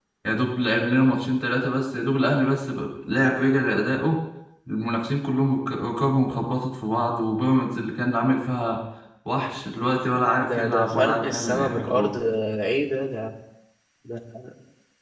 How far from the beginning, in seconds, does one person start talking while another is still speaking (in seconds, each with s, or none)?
10.4 s